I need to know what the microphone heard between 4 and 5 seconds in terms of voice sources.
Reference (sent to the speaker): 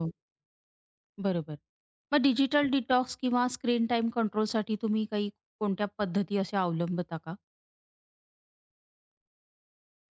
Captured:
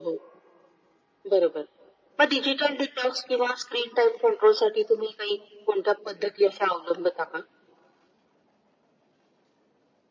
echo only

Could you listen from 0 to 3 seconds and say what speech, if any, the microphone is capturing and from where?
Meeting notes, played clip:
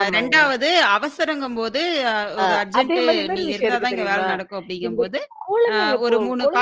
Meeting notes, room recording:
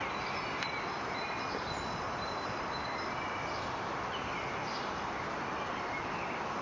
neither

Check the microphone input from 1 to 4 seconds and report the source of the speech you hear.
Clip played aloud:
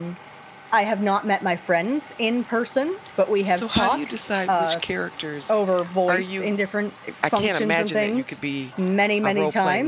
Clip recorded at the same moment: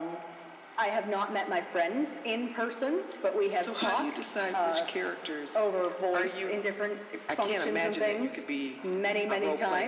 echo only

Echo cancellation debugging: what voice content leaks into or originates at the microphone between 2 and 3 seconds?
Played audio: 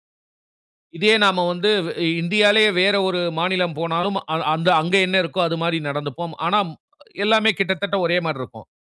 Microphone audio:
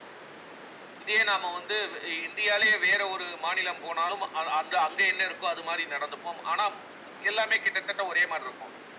echo only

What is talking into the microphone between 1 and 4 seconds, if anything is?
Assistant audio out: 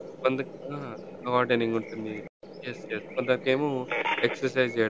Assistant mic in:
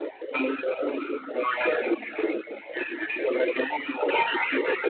echo only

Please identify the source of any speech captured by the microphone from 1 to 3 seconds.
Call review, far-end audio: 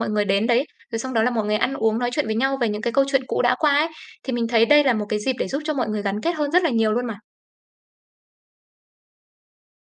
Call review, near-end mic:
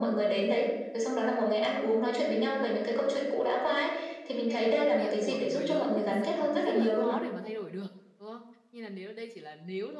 echo only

